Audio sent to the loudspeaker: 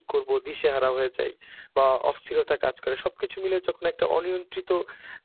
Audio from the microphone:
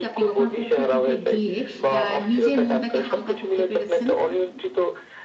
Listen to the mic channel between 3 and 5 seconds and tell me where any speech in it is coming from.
both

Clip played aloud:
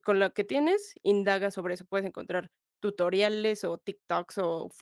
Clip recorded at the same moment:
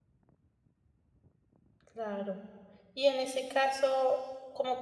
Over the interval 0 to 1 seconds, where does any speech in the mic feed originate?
neither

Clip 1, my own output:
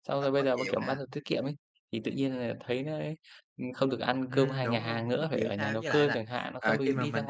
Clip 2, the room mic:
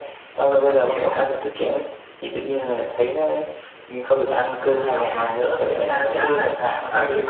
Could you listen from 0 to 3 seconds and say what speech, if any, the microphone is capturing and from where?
echo only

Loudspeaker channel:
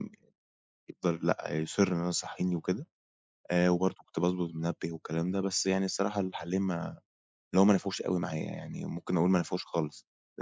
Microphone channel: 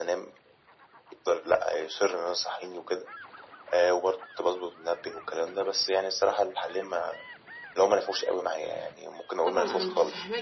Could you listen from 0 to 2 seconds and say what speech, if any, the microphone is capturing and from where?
echo only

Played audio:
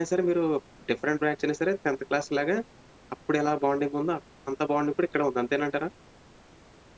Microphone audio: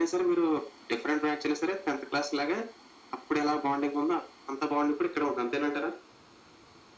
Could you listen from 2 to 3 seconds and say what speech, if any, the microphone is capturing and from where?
echo only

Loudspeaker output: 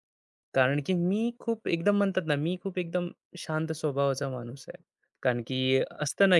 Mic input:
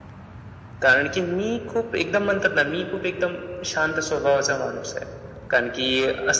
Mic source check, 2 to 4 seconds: echo only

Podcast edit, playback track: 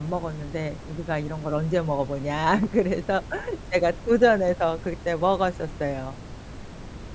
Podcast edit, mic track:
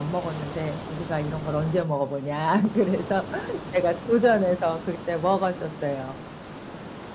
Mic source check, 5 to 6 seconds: echo only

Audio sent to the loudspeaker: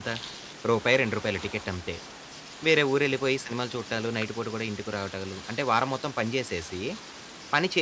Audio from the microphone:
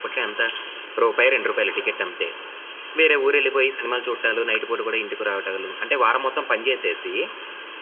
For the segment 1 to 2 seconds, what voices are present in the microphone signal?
echo only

